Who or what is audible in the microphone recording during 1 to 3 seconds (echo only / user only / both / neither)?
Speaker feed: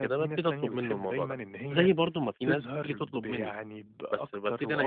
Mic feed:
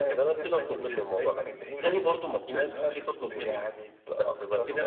echo only